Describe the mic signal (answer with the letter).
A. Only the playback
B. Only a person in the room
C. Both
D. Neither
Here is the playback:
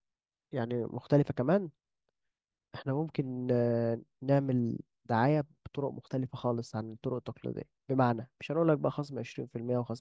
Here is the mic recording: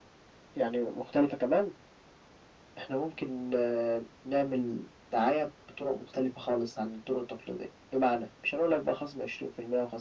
A